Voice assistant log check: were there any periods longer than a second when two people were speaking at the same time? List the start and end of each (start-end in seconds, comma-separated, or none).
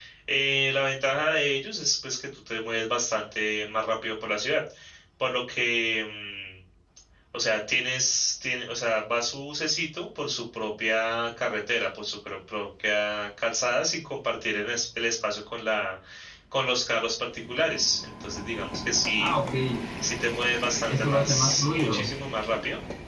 20.9-22.1